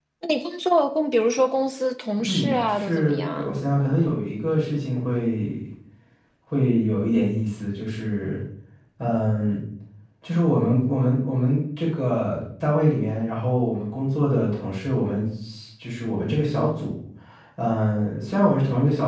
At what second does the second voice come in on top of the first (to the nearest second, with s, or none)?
2 s